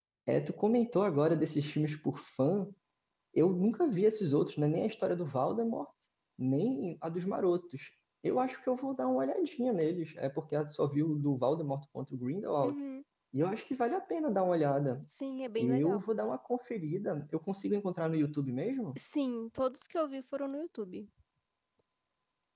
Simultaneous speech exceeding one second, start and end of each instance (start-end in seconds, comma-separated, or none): none